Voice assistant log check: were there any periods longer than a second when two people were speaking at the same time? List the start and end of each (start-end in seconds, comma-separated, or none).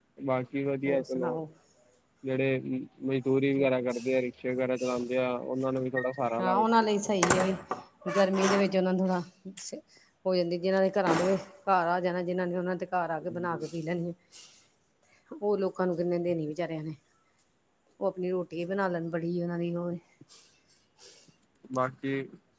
none